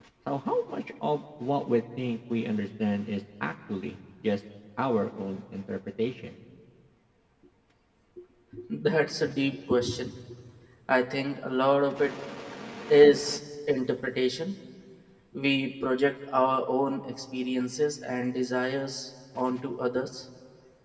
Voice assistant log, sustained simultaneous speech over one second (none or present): none